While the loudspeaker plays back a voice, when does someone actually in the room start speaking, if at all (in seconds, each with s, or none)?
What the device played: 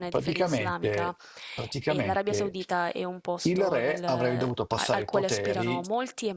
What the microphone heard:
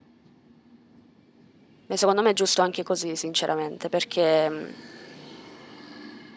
1.9 s